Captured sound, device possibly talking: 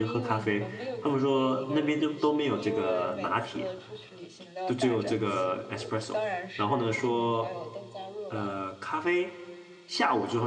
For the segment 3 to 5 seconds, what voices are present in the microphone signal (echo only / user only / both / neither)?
both